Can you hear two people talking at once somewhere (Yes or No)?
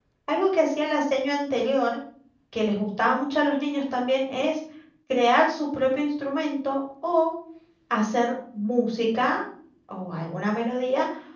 No